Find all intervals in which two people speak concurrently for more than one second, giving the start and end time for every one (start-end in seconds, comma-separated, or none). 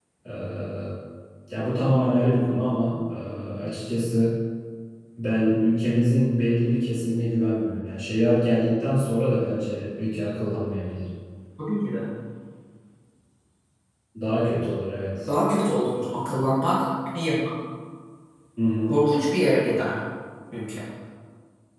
none